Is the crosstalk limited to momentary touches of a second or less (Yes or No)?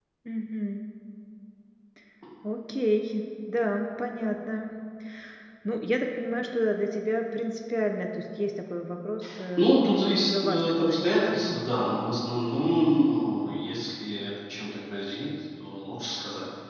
No